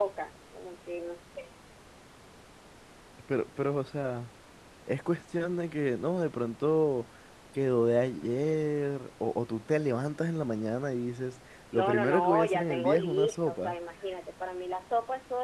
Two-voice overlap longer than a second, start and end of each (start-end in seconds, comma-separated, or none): 11.7-13.8